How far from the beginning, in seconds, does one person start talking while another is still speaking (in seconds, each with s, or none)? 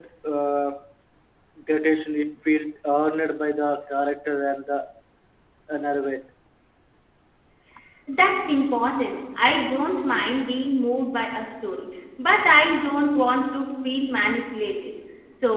none